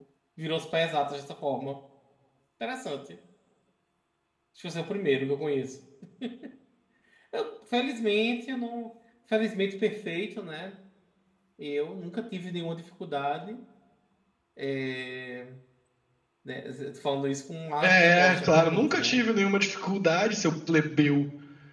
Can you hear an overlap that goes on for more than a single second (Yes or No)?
Yes